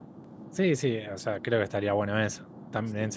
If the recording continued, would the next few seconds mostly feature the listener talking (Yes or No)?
No